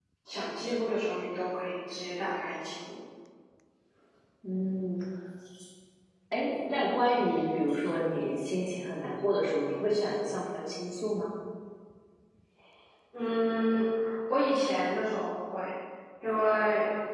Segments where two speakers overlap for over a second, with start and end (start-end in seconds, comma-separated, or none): none